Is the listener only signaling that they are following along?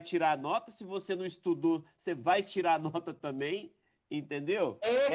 No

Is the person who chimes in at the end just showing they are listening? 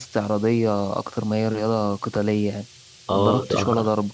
No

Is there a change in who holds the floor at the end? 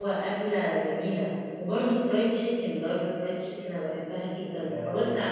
Yes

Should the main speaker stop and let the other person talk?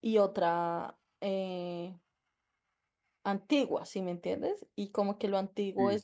No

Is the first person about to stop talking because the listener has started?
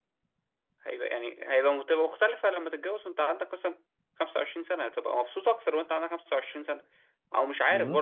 No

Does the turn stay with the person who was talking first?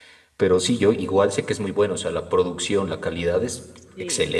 No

